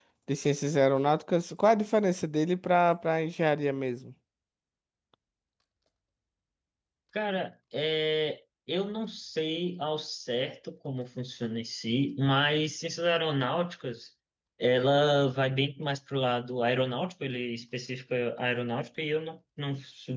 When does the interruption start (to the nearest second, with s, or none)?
none